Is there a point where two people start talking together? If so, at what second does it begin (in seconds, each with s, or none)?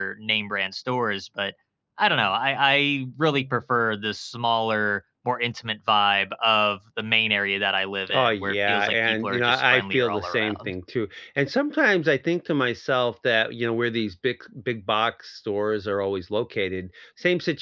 8.1 s